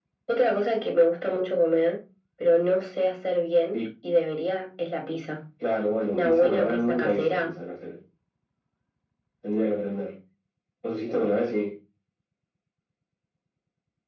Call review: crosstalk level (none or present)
present